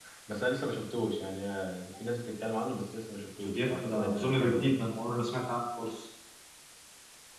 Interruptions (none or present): present